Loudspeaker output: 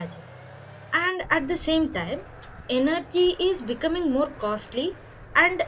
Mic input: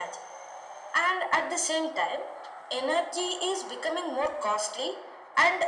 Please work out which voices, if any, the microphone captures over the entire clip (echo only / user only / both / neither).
echo only